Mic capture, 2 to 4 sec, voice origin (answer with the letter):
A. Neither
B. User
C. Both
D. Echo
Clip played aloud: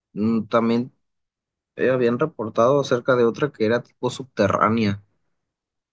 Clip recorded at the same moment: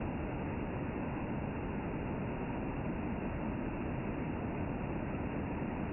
A